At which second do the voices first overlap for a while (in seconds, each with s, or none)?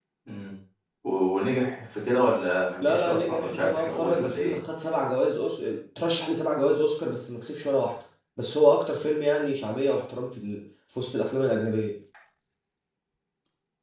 2.8 s